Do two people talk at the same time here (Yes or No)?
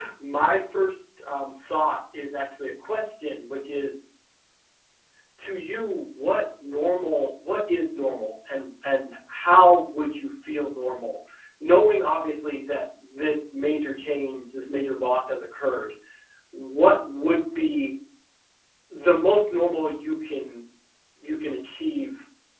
No